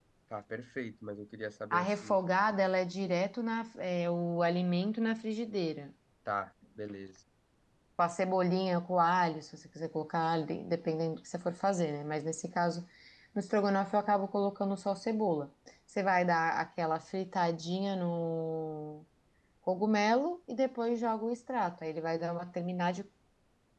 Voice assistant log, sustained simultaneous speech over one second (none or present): none